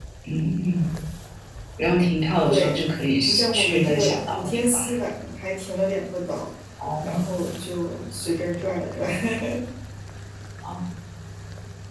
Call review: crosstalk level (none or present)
present